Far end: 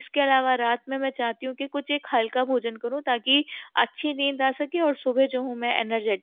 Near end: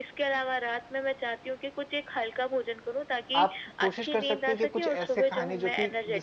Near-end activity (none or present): present